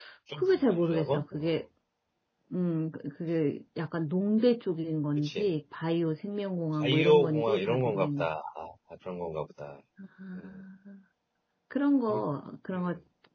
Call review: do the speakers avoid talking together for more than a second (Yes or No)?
No